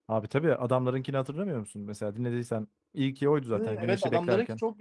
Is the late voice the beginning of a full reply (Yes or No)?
Yes